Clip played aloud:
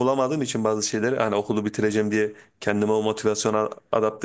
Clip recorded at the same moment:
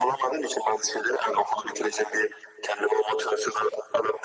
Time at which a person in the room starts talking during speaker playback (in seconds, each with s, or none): none